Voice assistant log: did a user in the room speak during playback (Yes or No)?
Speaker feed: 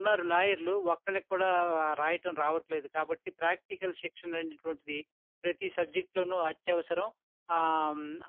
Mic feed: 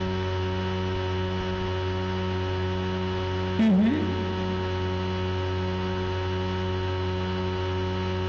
Yes